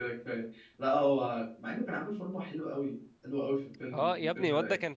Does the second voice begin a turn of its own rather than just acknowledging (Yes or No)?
Yes